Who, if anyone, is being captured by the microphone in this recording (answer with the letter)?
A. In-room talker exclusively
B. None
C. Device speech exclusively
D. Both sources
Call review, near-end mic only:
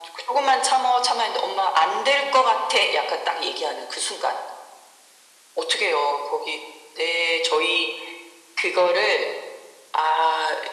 C